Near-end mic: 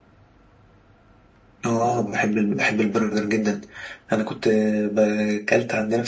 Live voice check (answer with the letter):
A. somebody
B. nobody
B